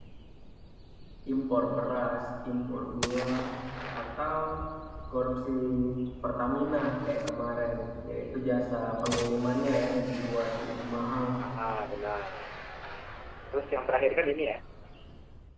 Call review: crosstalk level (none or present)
none